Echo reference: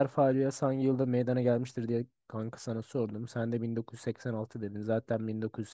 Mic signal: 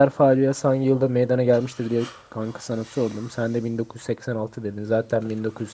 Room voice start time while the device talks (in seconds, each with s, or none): none